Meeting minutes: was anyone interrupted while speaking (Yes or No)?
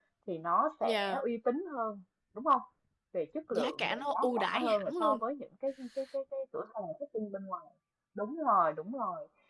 Yes